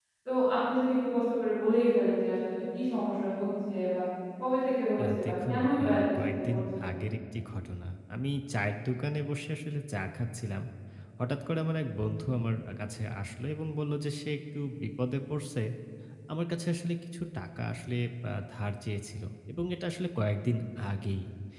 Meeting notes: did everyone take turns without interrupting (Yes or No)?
No